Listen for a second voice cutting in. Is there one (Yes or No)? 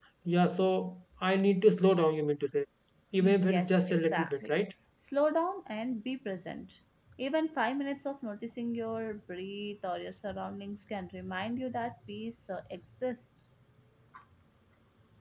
Yes